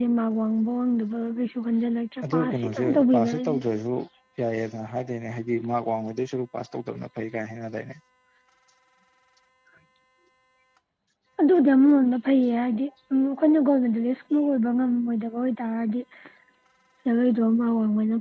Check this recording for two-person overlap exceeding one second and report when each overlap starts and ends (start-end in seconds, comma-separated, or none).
2.3-3.6